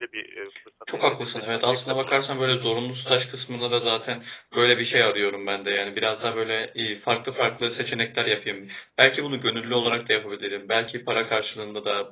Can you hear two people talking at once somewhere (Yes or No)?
Yes